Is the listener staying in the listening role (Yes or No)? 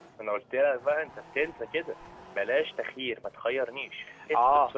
No